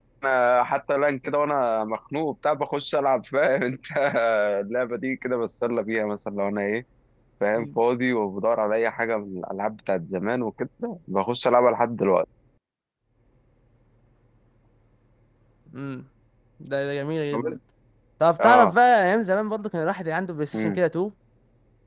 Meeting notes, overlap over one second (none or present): none